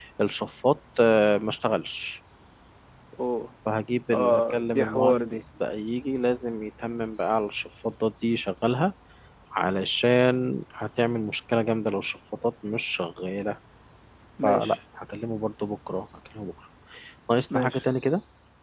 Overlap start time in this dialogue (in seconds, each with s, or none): 4.1 s